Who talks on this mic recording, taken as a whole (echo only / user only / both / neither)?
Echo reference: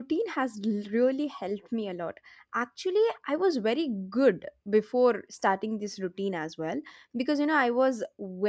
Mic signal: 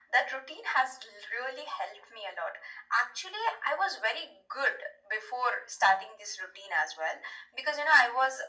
echo only